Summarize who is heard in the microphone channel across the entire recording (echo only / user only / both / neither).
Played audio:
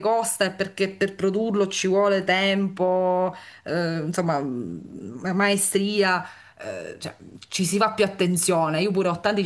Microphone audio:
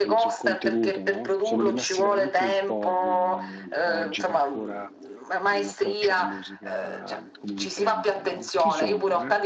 both